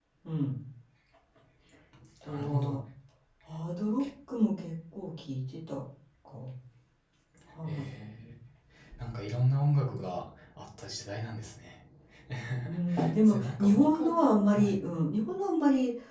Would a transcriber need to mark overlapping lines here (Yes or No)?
Yes